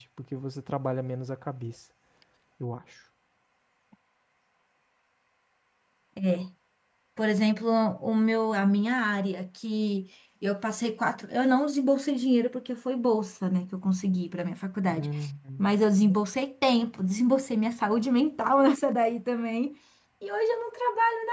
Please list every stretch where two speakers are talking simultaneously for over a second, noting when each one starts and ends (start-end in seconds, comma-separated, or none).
none